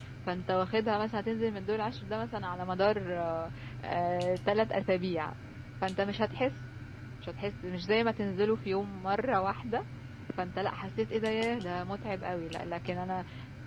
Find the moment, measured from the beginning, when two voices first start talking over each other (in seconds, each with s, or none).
none